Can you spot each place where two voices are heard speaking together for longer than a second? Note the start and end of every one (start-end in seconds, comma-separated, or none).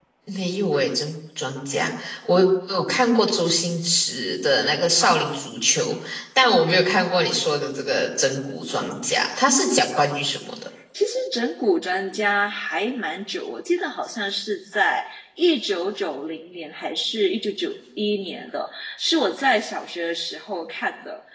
none